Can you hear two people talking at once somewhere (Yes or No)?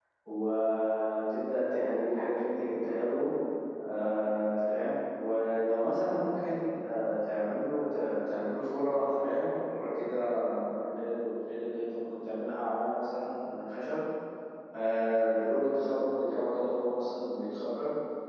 No